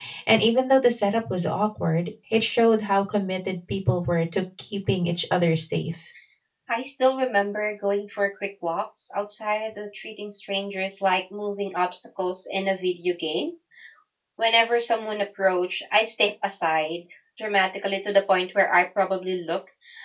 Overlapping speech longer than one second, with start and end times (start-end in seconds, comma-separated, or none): none